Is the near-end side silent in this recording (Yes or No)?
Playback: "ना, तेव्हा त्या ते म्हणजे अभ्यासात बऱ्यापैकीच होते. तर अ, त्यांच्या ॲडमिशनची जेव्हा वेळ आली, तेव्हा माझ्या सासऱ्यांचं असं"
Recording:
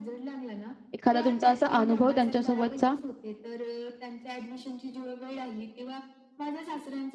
No